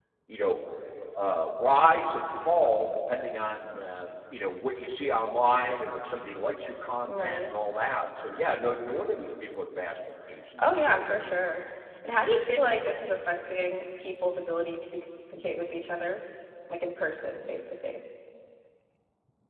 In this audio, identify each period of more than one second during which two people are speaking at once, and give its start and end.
none

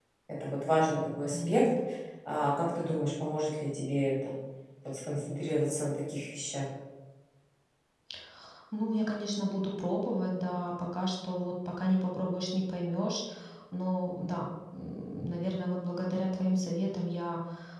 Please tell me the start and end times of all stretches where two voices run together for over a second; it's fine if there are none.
none

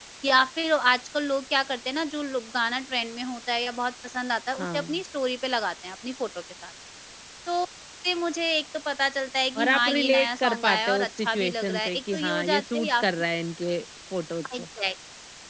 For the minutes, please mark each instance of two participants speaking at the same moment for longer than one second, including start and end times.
9.6-13.1

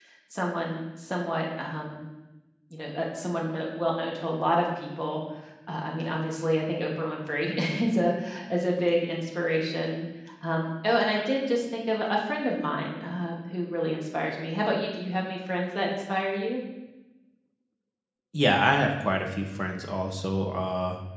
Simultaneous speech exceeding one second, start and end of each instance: none

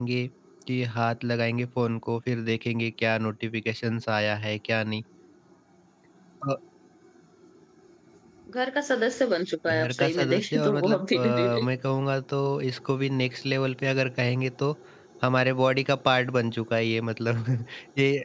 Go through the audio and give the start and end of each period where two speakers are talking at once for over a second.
9.7-11.6

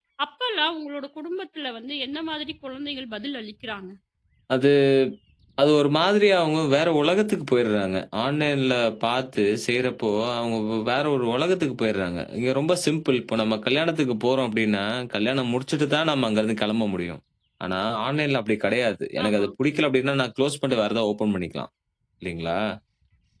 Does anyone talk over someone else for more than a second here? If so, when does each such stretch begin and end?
none

